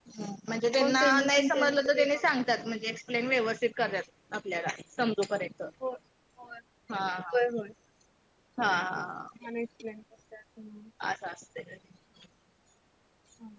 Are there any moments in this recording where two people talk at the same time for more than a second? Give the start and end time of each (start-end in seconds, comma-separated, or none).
0.8-2.2